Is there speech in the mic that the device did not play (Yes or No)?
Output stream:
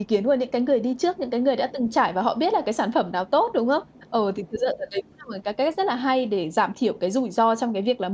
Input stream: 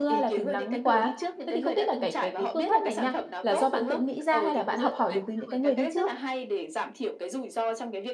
Yes